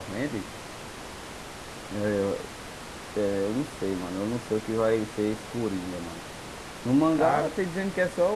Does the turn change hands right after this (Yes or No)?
No